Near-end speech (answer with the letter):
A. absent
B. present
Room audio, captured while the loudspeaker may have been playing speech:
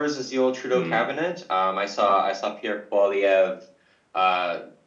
B